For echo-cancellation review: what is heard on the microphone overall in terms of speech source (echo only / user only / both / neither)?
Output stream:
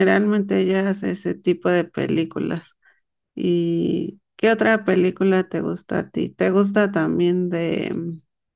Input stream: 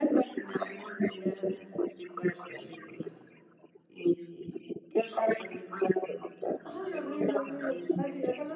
both